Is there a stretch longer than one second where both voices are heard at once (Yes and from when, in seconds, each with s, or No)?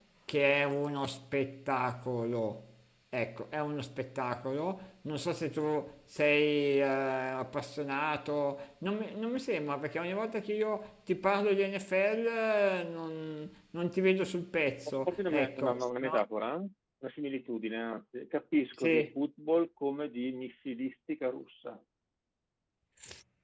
Yes, from 14.9 s